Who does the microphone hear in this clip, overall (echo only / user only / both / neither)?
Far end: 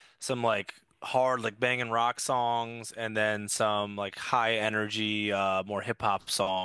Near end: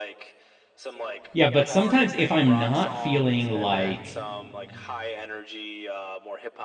both